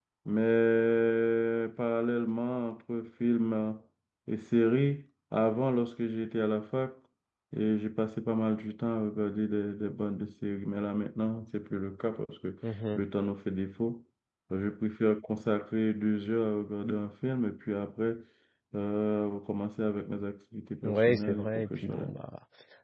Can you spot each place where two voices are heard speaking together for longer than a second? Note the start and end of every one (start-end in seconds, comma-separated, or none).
20.8-22.1